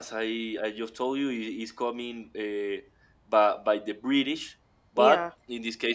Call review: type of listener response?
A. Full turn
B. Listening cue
B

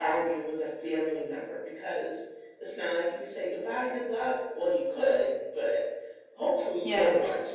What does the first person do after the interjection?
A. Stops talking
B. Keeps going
B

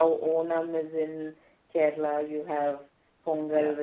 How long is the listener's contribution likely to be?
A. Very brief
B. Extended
B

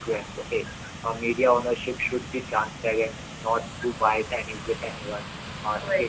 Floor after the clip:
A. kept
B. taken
A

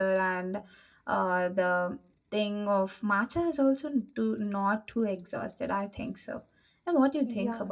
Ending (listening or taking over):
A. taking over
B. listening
A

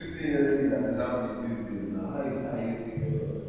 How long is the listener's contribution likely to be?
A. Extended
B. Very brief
A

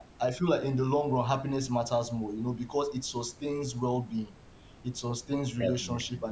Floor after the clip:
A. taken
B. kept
B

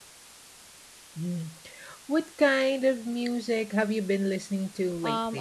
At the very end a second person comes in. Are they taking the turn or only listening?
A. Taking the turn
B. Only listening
A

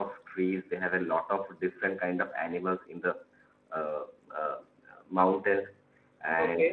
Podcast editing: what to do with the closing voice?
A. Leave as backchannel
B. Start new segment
A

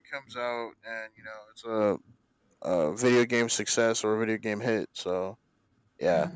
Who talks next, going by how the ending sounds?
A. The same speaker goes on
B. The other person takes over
A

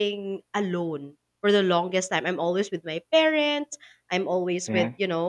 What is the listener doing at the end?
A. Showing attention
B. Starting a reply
A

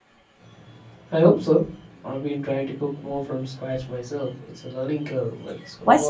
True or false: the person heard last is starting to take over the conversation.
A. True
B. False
A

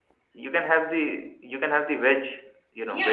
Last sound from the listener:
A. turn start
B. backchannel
A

